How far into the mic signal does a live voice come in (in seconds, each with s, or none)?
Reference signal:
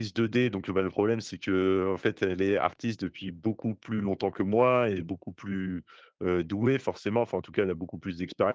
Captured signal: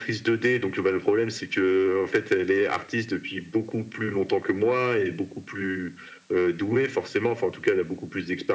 none